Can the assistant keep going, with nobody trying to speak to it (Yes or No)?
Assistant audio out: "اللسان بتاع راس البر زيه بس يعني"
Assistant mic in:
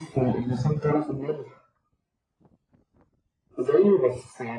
Yes